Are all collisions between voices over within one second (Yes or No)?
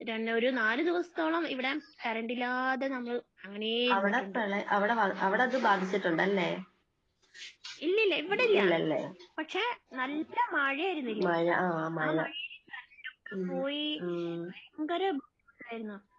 Yes